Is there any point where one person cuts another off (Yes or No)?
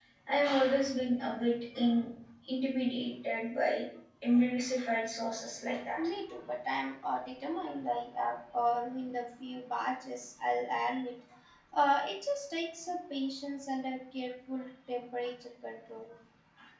No